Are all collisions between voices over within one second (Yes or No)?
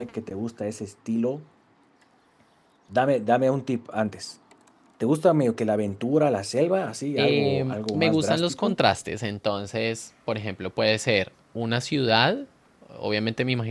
No